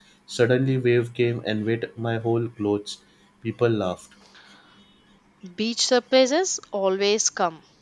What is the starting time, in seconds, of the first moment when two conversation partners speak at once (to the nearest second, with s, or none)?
none